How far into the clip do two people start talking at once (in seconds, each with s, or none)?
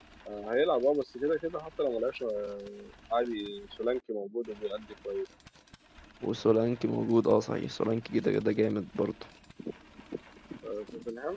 none